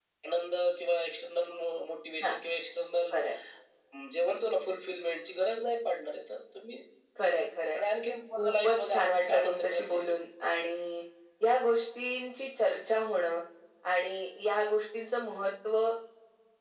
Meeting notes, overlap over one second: present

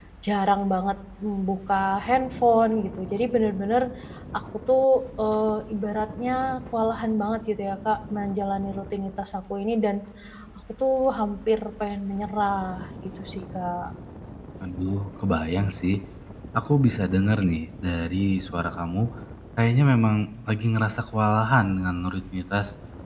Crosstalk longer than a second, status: none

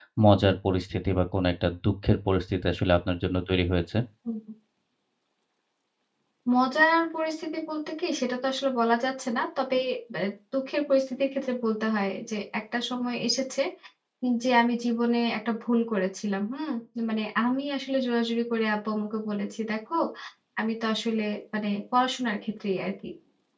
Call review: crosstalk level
none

